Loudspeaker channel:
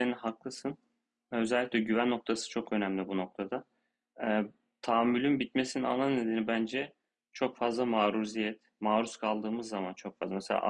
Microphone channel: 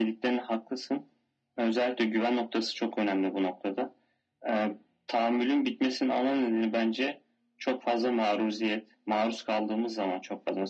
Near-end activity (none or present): none